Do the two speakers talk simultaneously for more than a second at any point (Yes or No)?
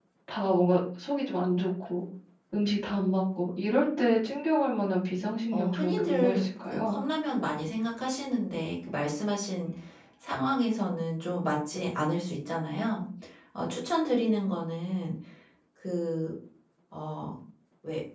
Yes